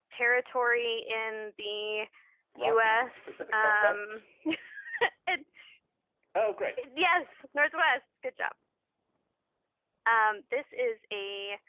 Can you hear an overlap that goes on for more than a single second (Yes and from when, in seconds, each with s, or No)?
Yes, from 2.6 s